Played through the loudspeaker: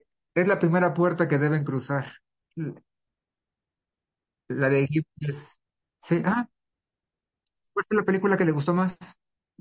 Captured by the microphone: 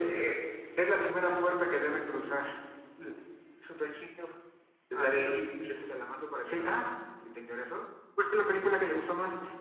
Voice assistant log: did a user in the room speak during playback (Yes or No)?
Yes